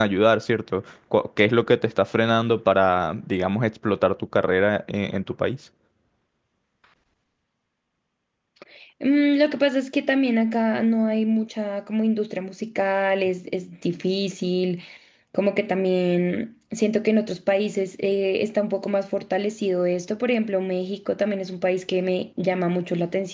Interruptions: none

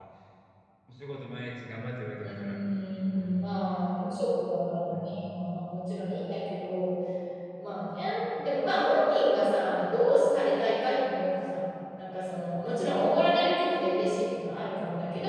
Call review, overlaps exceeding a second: none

